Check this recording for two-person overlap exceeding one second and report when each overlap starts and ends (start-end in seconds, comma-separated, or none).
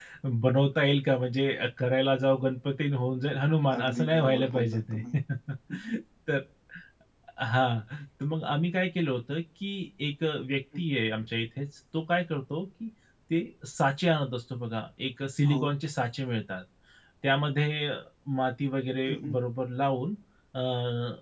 3.8-5.0